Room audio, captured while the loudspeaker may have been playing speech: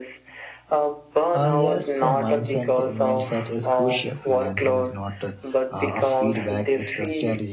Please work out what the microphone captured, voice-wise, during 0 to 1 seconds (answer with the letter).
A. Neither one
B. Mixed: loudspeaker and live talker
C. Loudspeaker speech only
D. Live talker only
C